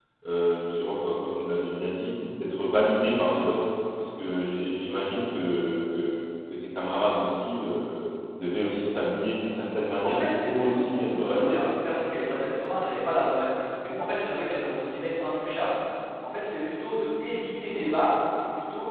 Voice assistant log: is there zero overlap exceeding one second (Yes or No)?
No